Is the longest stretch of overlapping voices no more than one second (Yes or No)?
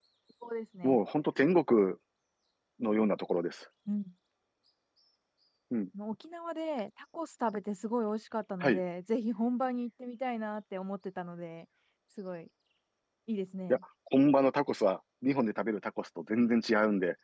Yes